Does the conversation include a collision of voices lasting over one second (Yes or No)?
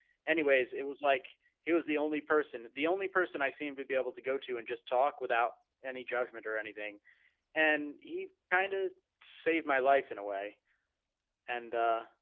No